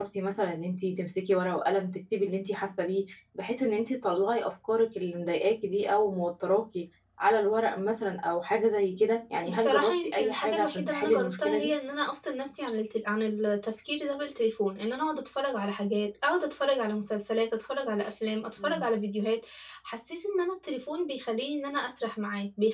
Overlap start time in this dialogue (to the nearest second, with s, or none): 10 s